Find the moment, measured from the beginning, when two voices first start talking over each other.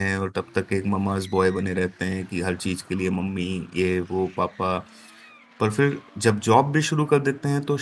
none

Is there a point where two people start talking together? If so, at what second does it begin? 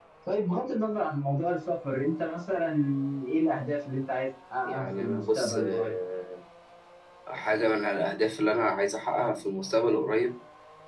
4.7 s

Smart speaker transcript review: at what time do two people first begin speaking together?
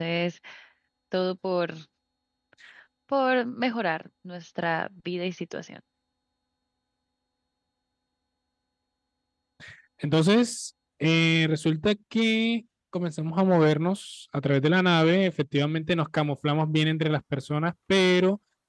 none

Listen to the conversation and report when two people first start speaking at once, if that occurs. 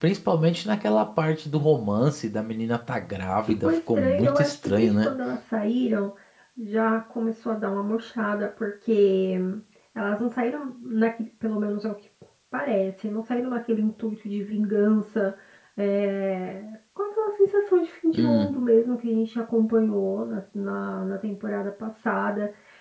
3.6 s

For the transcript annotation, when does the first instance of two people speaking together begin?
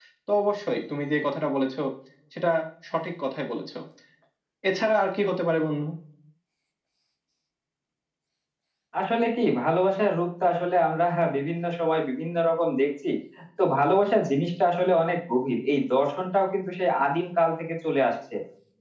none

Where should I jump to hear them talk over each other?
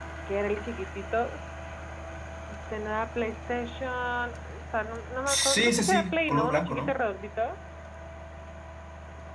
5.3 s

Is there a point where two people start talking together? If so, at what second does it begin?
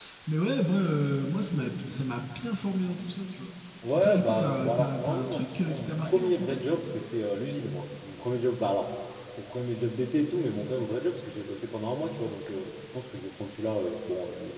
3.9 s

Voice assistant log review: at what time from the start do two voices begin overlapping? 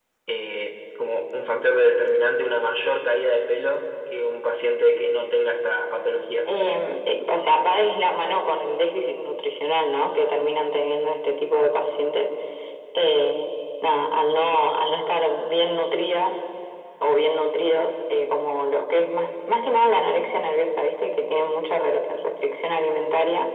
none

